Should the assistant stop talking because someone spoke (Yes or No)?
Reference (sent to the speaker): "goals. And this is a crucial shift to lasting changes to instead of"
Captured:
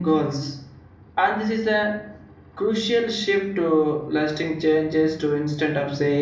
No